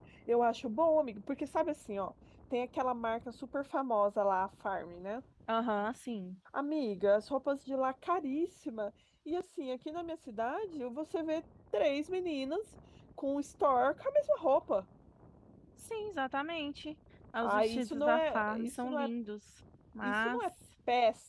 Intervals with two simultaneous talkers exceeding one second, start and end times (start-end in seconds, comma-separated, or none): 17.4-19.1